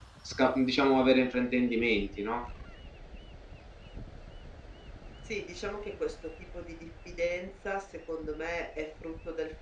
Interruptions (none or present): none